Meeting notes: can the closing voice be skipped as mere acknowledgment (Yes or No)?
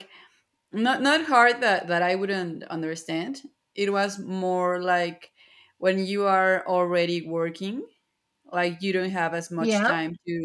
Yes